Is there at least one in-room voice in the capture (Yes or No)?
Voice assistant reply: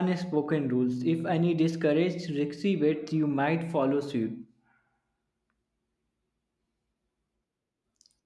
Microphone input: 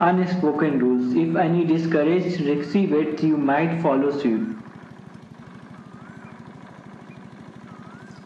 No